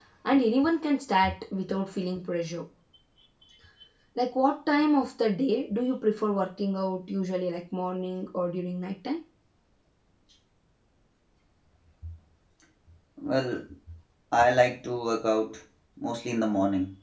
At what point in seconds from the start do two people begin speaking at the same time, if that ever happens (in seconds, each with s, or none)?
none